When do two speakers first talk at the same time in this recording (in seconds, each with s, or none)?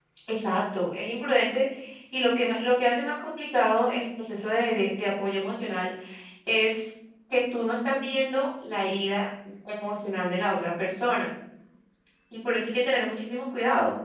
none